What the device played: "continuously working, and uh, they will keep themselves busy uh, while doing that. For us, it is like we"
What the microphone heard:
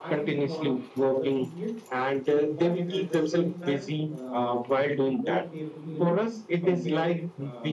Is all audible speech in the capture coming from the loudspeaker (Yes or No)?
No